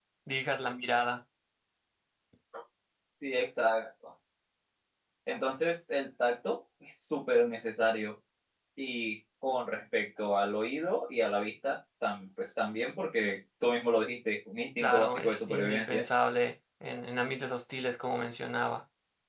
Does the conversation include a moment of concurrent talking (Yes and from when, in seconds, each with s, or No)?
Yes, from 14.8 s